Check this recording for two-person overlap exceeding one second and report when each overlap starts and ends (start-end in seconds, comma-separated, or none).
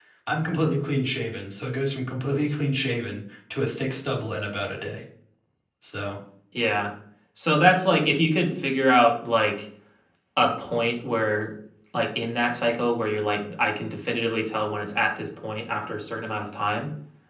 none